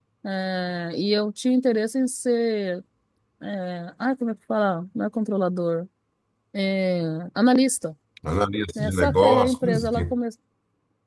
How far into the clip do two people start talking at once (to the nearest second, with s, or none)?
9 s